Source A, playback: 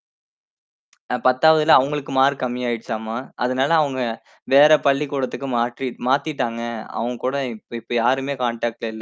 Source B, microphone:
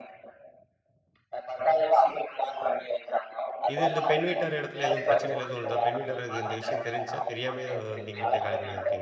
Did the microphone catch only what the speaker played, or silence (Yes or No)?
No